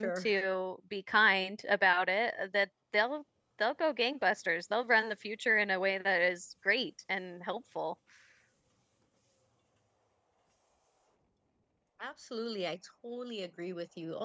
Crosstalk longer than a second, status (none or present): none